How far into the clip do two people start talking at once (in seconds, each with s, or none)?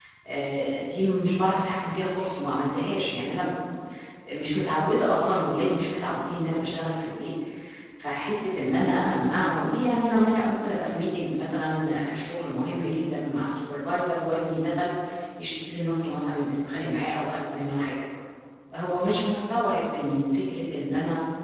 none